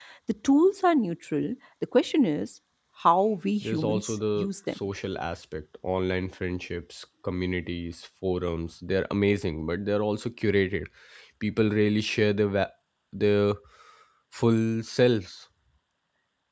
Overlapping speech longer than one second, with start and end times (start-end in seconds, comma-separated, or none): 3.6-4.8